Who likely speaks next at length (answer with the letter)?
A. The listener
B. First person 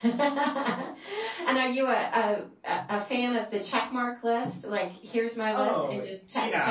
A